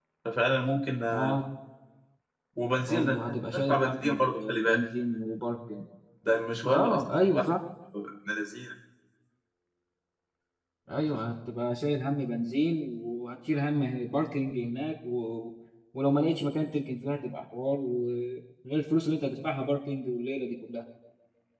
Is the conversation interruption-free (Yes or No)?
No